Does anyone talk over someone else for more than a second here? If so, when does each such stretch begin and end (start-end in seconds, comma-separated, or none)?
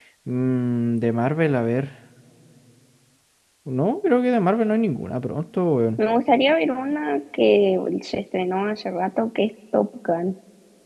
none